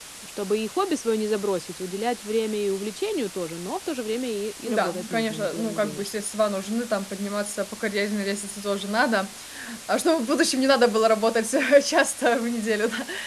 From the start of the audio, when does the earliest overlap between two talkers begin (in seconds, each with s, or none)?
4.7 s